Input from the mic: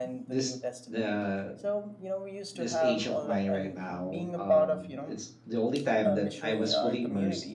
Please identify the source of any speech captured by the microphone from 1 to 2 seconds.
both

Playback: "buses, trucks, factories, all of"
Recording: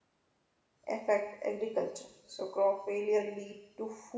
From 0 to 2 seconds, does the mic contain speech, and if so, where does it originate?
user only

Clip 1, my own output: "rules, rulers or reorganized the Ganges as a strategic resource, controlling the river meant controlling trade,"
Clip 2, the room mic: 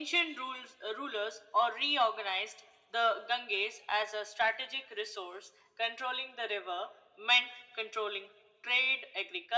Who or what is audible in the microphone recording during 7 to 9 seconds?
echo only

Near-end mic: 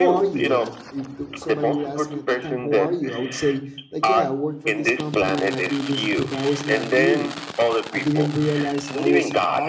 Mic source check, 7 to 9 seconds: both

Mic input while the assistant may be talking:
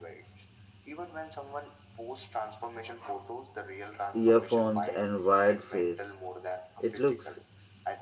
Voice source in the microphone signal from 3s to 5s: both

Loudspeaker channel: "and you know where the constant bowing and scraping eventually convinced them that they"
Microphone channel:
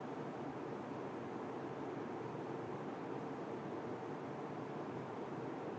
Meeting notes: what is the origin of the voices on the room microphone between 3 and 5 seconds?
neither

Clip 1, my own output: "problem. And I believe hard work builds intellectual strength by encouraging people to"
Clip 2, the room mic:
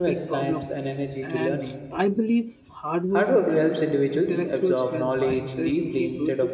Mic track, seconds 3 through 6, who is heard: both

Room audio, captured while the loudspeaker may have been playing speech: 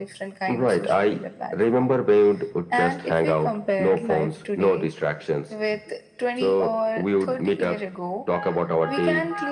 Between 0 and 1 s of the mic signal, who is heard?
echo only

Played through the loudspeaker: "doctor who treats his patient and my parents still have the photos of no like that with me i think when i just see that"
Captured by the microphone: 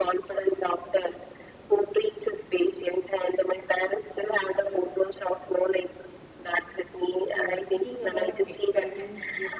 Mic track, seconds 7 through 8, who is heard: both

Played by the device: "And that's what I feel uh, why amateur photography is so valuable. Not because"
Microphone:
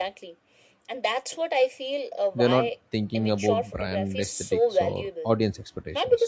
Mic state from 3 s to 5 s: both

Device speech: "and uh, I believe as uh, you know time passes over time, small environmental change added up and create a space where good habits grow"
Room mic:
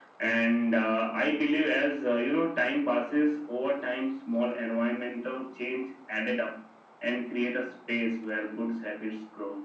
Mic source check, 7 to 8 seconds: echo only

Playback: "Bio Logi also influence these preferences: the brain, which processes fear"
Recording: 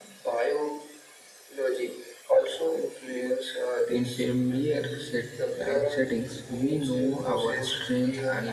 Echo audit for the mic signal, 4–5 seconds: both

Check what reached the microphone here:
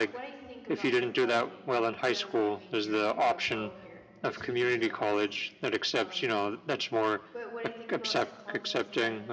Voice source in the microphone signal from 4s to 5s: both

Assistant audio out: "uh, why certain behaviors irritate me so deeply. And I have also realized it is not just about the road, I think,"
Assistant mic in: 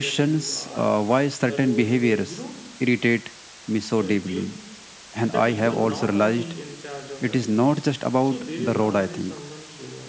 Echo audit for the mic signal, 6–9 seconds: both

